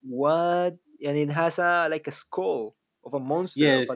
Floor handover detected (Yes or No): Yes